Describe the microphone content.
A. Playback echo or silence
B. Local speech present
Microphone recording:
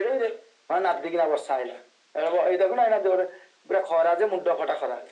A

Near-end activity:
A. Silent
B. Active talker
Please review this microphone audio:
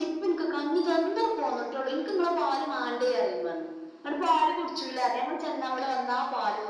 A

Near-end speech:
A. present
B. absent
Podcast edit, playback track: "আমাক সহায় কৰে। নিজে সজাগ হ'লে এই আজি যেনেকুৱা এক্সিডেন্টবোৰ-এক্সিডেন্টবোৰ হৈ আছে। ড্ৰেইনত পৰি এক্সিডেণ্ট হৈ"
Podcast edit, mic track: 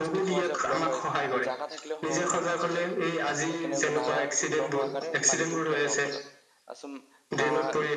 A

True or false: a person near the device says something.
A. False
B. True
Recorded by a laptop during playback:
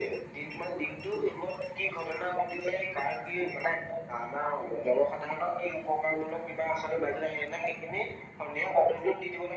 A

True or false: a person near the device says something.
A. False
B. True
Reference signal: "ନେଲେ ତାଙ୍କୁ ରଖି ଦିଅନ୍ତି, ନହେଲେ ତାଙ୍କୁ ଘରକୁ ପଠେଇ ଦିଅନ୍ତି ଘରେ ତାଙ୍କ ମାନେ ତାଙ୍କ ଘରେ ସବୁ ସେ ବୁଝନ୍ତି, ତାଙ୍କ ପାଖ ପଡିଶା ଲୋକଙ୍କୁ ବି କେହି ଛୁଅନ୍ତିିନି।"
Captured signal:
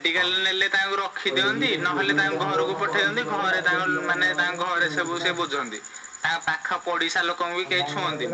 B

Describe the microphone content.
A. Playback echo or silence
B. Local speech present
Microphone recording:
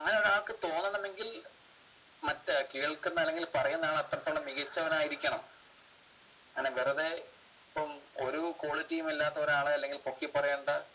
A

